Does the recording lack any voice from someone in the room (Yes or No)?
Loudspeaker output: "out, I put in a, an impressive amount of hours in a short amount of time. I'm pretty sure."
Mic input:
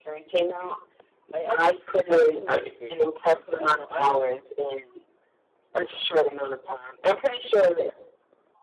No